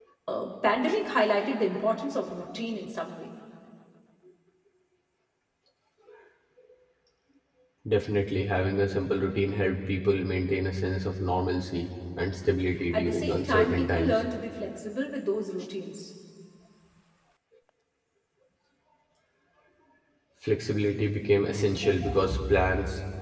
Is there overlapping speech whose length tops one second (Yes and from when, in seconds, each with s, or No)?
Yes, from 12.9 s